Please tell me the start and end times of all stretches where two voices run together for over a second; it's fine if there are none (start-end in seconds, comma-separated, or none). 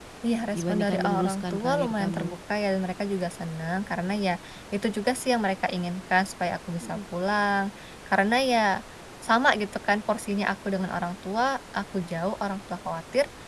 0.6-2.4